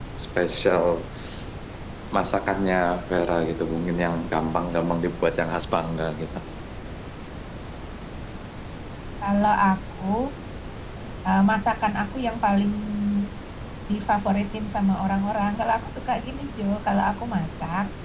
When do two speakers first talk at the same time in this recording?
none

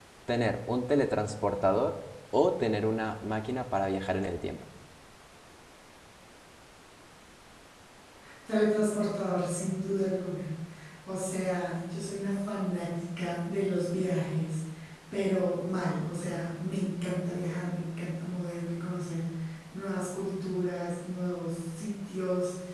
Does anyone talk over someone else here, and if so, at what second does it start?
none

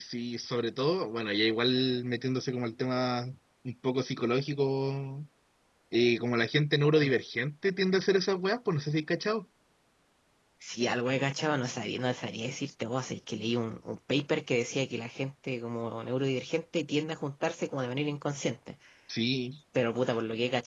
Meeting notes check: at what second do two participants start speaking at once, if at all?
none

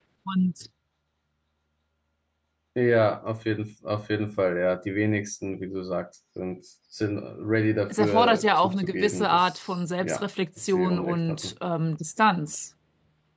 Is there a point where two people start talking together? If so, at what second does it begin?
7.9 s

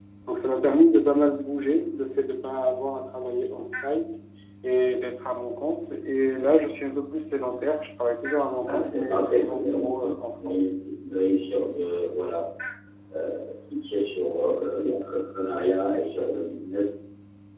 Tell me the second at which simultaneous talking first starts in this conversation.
8.6 s

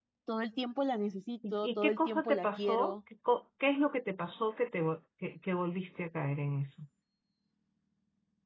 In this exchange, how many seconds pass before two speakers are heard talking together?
1.4 s

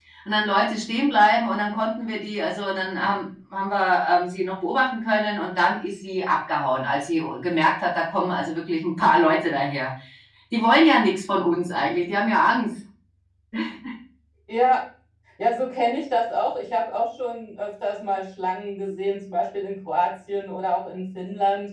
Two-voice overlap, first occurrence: none

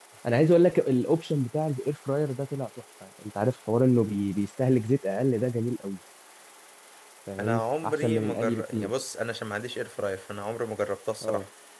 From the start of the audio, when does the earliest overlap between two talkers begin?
7.4 s

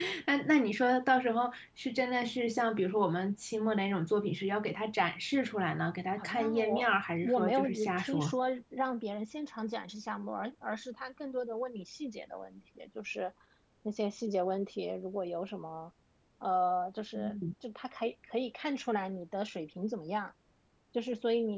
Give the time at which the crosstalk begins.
6.2 s

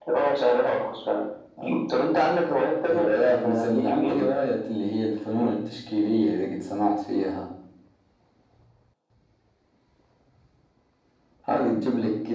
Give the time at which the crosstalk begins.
2.9 s

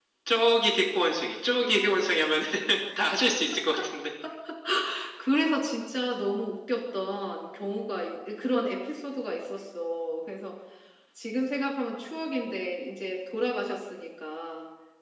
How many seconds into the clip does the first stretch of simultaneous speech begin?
none

